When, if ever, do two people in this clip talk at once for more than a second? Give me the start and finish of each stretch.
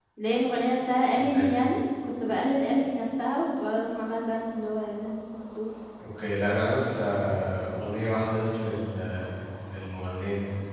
none

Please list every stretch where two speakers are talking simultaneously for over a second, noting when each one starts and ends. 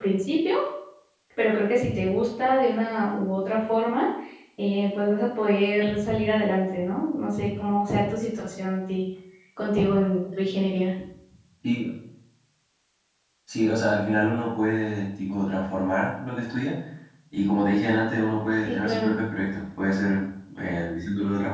none

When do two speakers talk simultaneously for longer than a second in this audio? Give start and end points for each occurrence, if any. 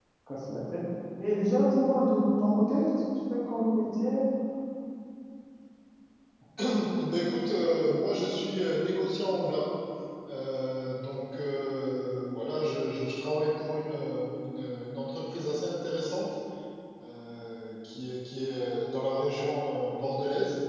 none

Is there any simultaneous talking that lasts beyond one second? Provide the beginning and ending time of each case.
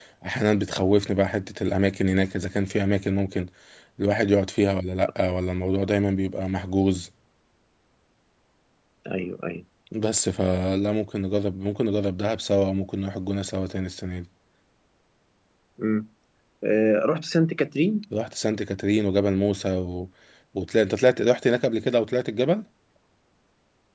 none

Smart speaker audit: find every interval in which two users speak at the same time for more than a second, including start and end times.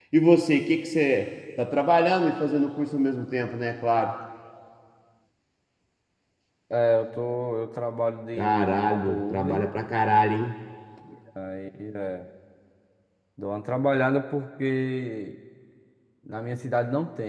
8.3-9.6

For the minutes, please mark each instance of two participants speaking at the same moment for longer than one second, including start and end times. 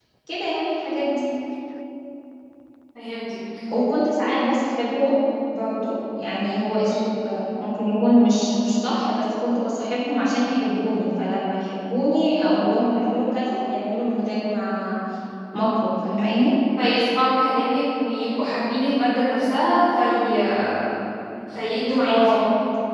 none

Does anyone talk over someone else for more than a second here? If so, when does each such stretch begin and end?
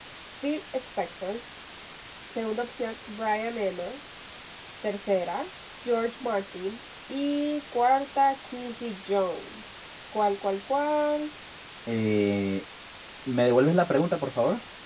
none

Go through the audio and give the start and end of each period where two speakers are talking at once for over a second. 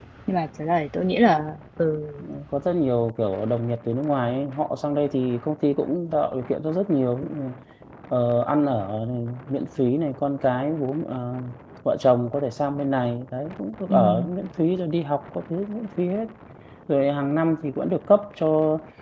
none

